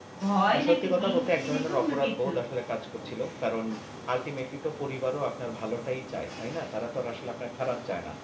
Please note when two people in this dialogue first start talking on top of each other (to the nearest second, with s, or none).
1 s